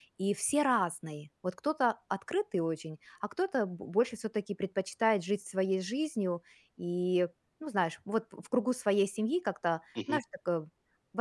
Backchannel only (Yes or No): Yes